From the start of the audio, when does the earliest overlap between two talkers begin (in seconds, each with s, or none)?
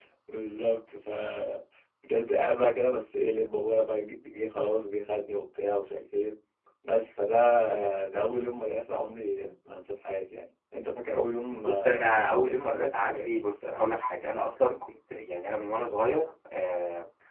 11.6 s